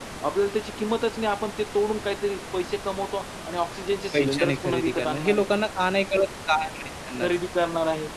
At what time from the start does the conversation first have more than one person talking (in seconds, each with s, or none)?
4.1 s